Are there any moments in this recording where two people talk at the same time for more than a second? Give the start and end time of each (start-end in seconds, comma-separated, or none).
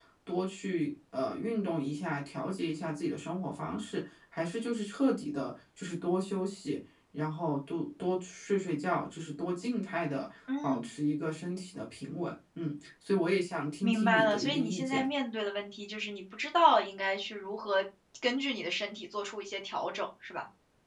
13.8-15.0